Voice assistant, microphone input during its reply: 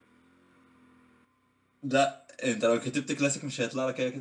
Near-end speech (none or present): present